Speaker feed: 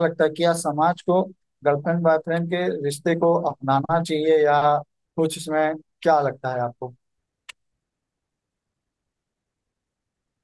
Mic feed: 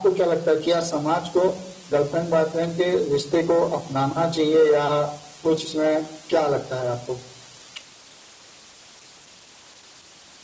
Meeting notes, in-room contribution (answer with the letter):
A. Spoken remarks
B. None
B